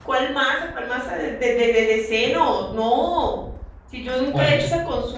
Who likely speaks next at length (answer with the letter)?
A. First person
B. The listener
A